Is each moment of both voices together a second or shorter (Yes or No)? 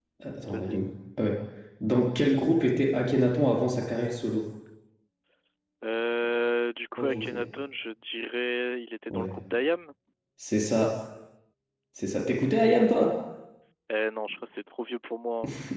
Yes